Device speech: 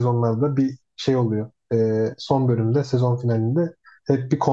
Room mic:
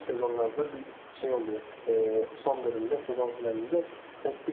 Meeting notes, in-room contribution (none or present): none